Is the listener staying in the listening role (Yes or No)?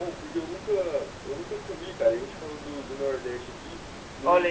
No